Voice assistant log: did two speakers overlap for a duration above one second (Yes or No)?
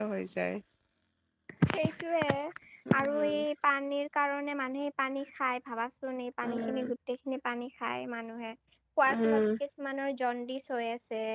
No